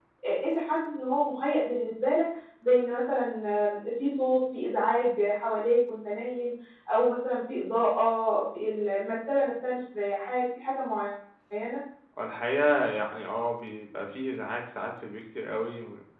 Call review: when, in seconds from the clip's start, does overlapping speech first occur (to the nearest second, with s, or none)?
none